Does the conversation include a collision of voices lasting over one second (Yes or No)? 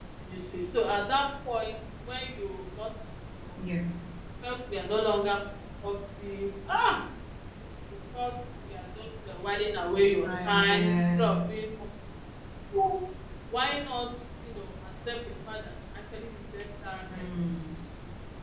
Yes